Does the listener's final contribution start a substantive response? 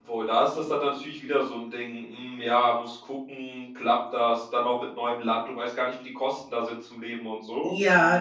Yes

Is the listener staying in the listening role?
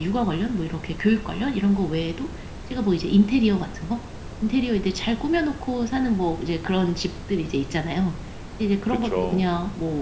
Yes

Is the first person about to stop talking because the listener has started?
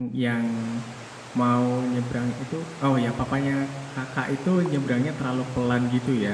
Yes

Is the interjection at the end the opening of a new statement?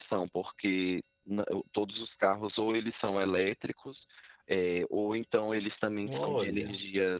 No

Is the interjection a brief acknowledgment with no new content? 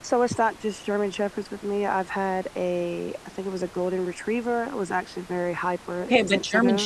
No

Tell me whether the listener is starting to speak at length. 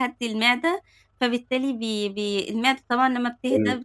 No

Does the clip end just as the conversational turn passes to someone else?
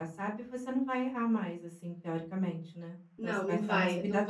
Yes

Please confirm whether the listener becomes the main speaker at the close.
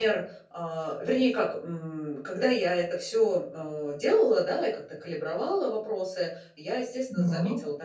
No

